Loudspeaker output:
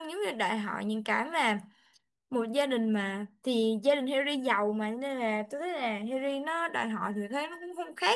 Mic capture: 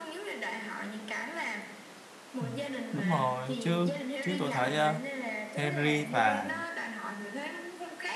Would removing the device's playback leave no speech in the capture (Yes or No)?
No